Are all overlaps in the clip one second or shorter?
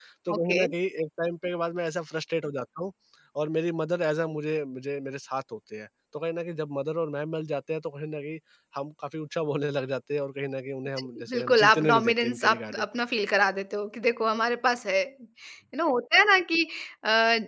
No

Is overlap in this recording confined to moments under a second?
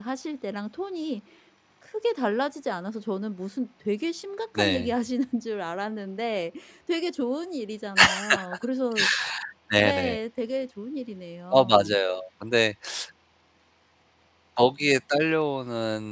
Yes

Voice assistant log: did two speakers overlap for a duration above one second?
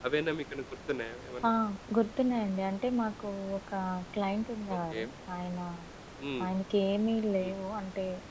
No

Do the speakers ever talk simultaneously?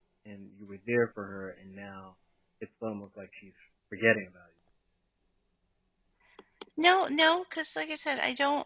No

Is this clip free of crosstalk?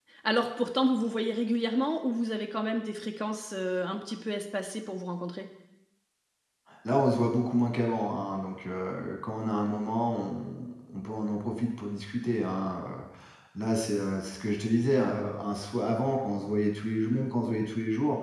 Yes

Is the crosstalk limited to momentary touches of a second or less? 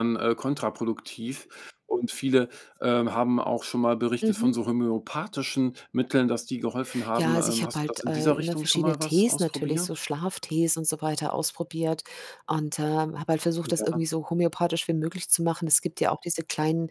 No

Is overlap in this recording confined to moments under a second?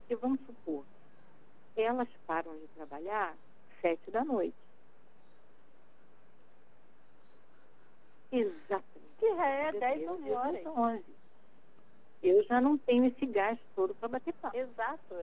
No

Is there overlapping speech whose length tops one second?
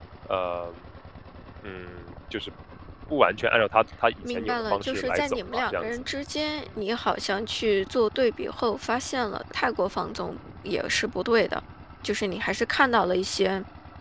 Yes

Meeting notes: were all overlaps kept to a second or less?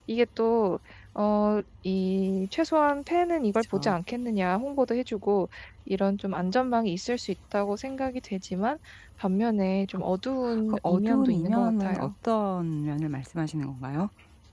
No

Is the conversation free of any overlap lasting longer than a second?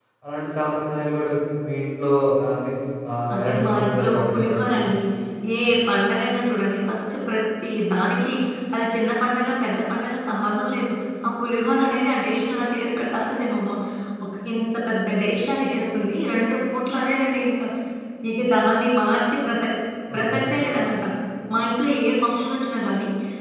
No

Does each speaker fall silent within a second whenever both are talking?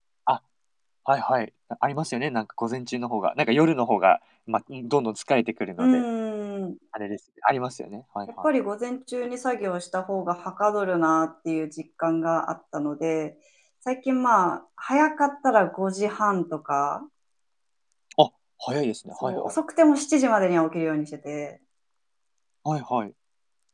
Yes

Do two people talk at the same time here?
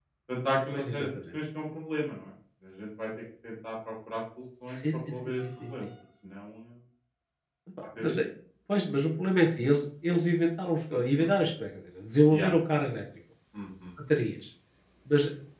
Yes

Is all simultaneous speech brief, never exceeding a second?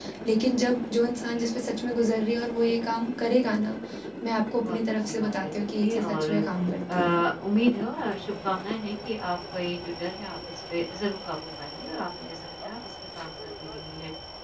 No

